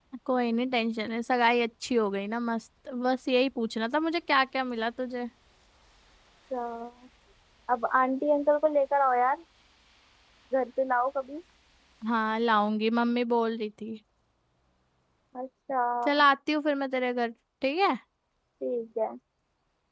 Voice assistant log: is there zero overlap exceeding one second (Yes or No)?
Yes